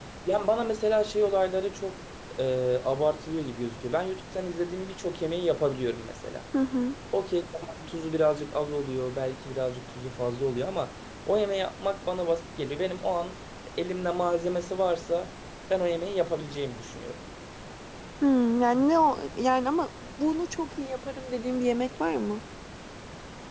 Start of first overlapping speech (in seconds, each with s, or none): none